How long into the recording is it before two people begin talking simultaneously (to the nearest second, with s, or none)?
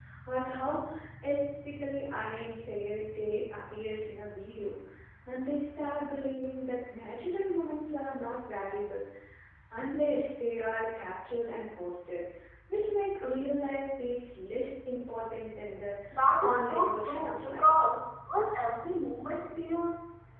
16 s